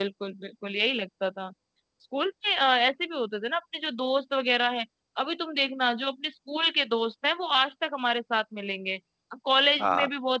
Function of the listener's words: listening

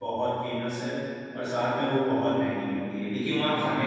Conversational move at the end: listening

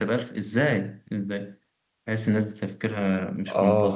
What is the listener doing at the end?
taking over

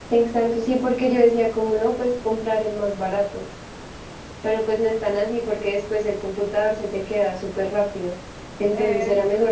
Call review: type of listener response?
listening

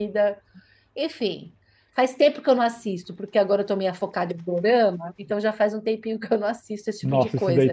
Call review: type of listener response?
taking over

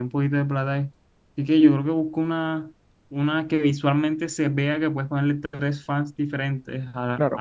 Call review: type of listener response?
listening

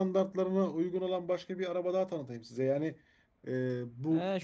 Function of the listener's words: taking over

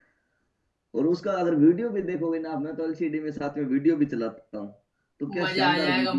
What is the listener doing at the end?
taking over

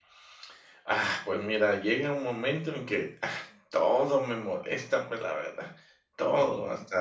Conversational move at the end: listening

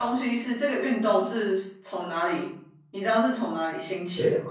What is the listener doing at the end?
taking over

